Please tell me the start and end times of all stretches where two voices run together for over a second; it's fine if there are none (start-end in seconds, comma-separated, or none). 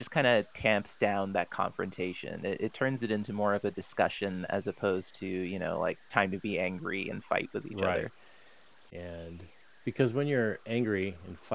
none